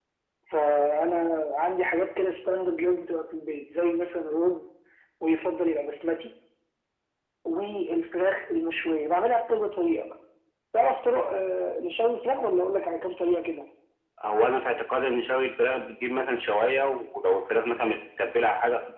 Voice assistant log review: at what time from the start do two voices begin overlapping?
none

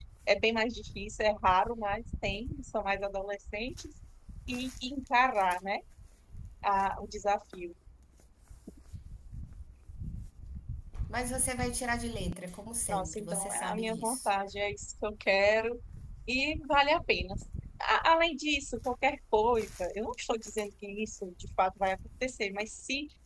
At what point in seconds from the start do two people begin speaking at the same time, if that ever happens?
12.9 s

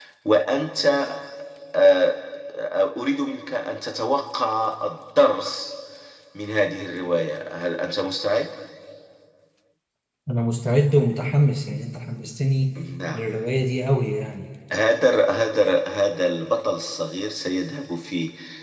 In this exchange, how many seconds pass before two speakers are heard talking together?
none

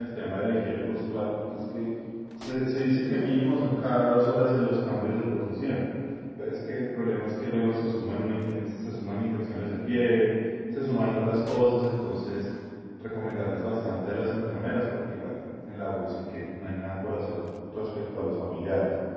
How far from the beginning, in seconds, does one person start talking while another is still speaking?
none

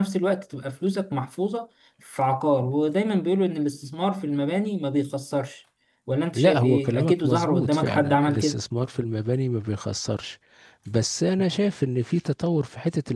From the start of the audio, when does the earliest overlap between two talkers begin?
6.3 s

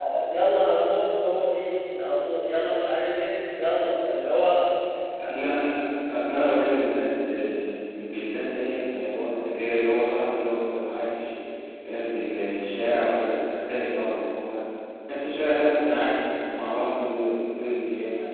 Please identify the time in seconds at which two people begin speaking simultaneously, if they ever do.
none

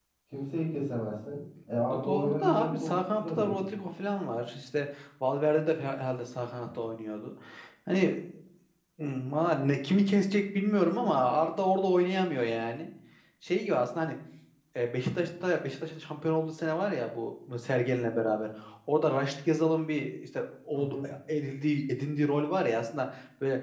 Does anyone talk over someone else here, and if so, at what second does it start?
1.8 s

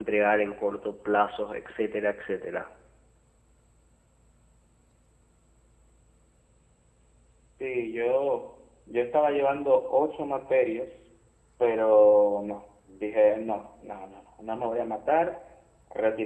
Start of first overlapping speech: none

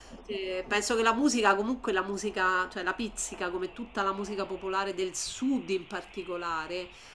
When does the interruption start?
none

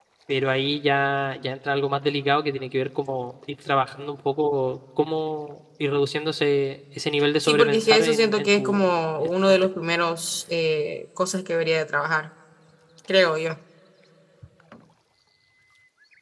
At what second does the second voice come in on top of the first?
7.4 s

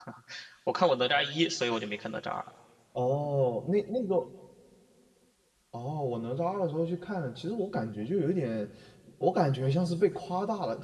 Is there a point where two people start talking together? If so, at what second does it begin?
none

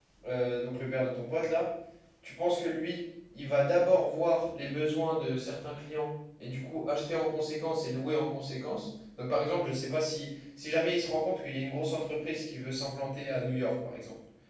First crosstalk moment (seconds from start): none

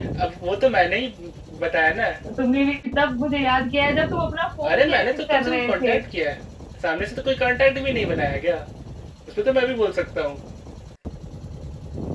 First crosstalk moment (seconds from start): 4.6 s

